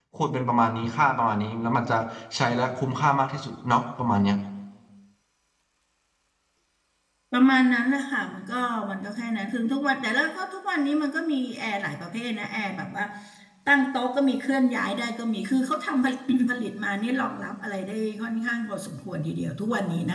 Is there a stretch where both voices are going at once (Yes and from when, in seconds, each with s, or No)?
No